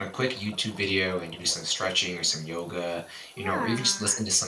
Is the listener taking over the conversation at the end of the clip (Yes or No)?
No